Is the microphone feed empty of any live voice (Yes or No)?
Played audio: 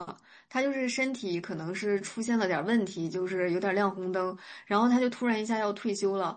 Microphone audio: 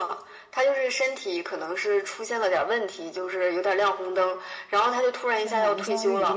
No